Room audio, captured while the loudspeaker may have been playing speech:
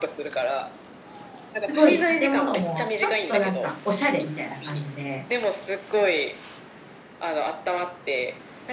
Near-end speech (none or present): present